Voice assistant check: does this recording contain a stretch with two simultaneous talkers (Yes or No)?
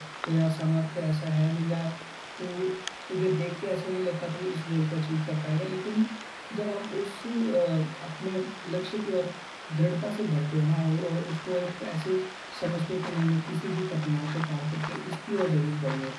No